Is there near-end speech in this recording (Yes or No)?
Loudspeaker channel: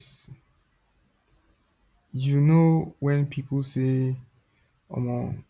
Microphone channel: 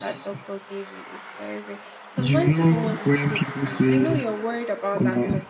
Yes